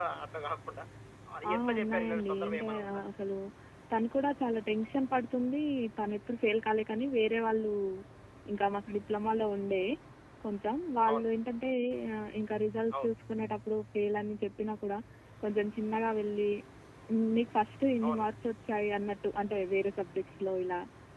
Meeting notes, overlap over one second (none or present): present